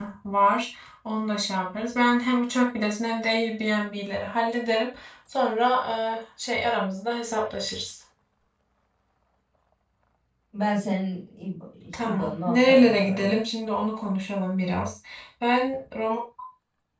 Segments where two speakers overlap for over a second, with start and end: 12.0-13.3

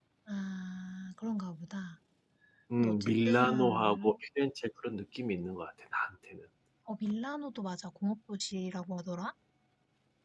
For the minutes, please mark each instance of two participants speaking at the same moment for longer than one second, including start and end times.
2.8-4.2

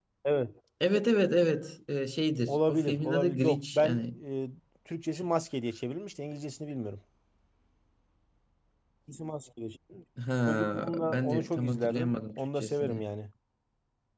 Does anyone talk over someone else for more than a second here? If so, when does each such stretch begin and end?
2.5-4.0, 10.5-13.0

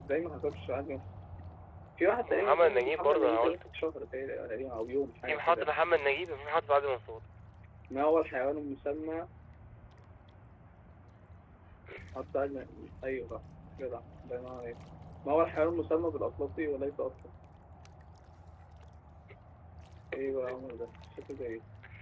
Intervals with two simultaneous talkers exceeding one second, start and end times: 2.2-3.7

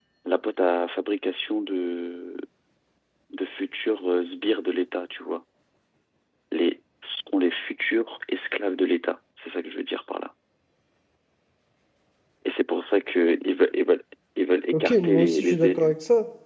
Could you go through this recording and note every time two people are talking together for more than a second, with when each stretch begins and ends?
14.7-15.9

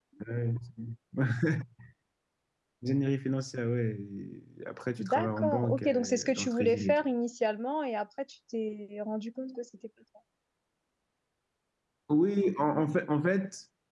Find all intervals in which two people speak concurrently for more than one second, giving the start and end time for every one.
5.0-7.0

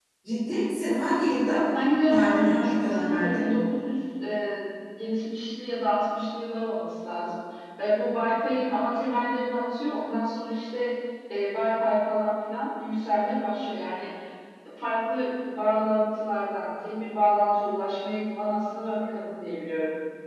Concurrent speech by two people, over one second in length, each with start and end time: 2.1-3.3

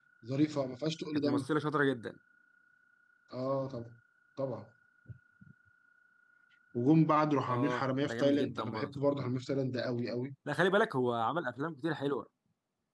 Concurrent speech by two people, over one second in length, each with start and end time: 7.5-8.9

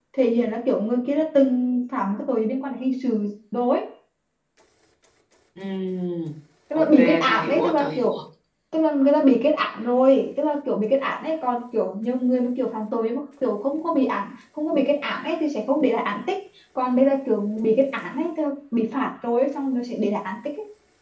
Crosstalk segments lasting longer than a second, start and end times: 6.8-8.2

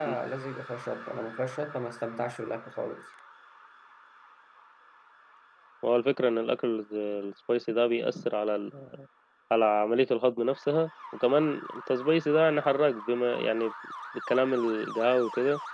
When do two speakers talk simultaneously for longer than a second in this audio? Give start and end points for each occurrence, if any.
none

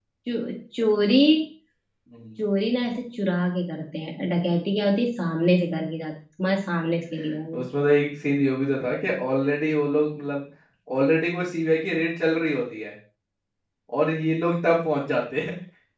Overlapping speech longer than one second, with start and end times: none

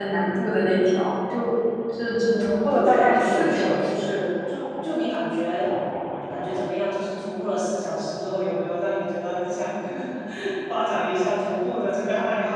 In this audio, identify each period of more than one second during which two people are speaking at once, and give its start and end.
2.3-4.0

